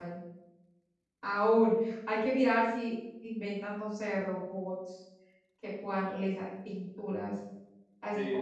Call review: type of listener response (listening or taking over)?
taking over